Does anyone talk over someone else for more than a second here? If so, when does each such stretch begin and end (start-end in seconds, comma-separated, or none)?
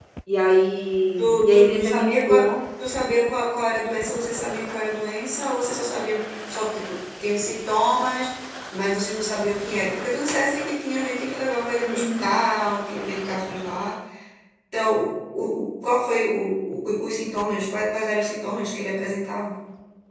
1.2-2.5